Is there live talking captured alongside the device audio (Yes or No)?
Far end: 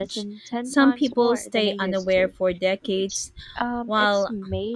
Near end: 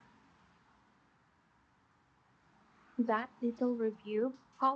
Yes